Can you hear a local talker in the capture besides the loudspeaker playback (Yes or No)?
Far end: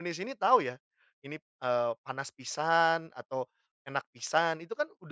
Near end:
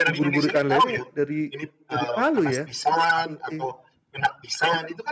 Yes